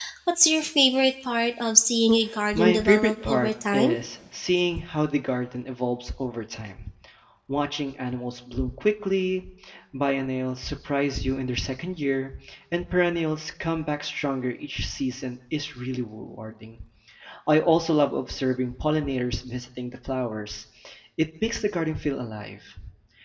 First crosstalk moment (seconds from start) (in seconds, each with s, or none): 2.5 s